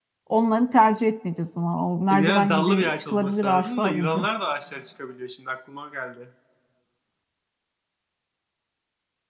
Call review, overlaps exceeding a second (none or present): present